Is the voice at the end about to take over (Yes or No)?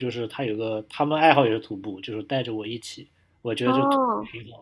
No